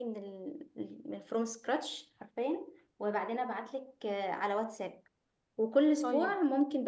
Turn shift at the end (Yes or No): No